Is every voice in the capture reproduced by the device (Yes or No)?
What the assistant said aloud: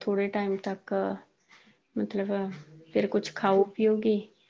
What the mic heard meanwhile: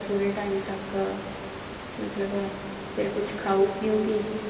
Yes